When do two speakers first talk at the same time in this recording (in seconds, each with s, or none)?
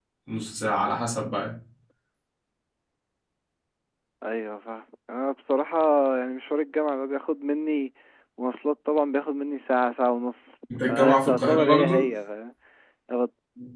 10.7 s